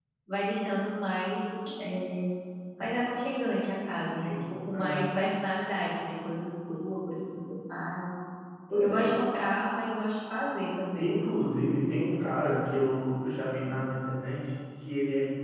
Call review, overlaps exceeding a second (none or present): none